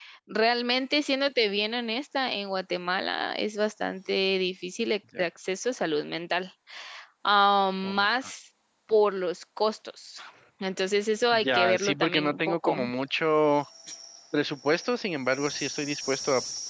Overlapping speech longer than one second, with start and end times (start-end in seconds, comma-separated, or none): 11.3-12.8